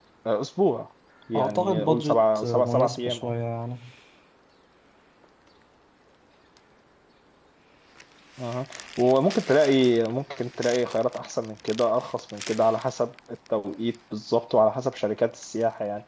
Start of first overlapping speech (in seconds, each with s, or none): 1.3 s